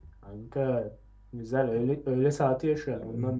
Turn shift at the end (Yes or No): Yes